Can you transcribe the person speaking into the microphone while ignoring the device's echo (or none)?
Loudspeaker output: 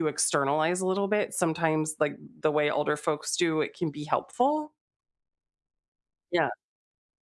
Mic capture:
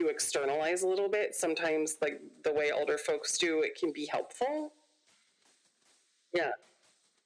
none